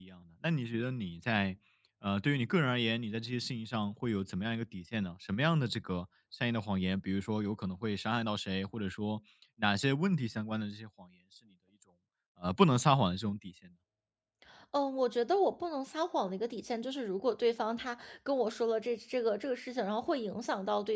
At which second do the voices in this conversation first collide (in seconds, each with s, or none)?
none